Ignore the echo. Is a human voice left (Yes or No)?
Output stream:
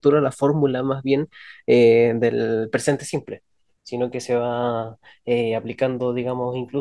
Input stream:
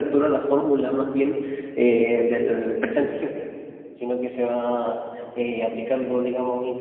No